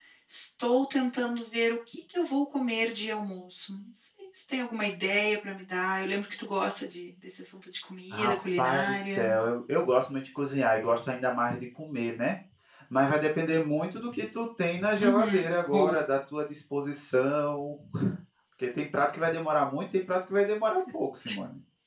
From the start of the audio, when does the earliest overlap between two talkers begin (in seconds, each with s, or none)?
8.1 s